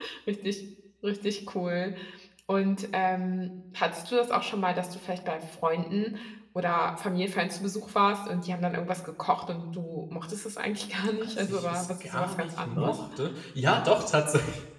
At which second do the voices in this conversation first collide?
11.4 s

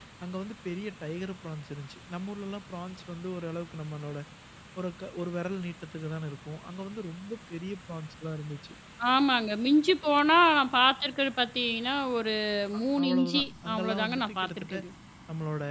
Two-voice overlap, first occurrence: 12.8 s

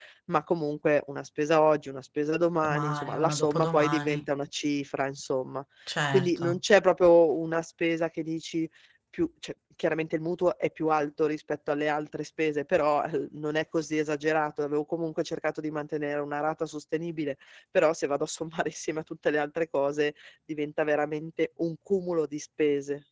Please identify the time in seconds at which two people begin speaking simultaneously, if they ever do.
2.6 s

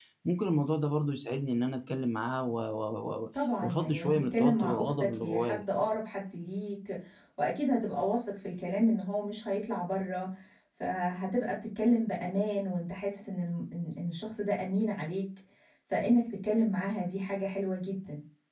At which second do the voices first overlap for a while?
3.6 s

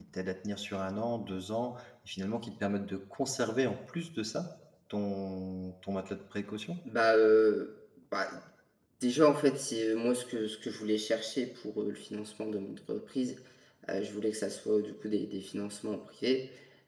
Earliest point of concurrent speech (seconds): none

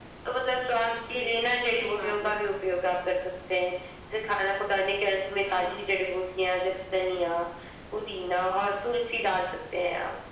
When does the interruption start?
1.1 s

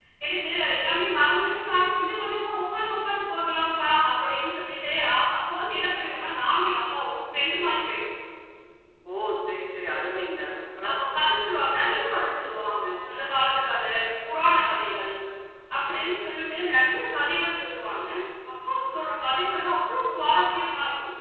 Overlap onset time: none

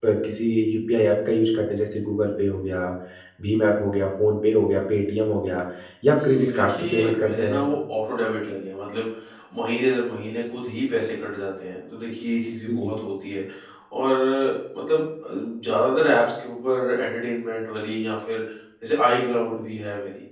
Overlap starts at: 6.1 s

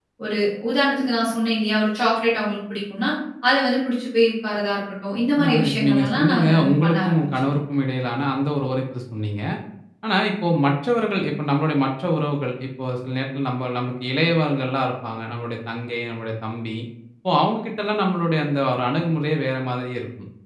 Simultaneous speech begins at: 5.4 s

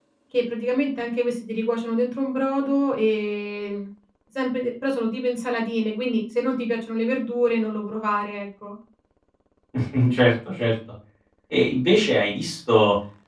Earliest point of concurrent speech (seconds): none

